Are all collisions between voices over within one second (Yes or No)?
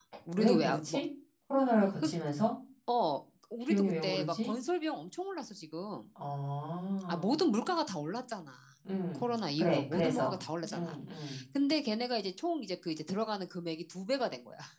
No